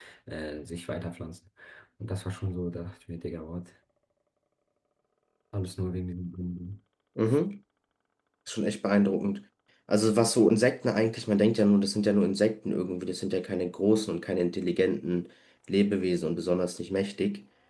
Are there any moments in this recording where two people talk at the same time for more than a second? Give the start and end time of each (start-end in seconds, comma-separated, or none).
none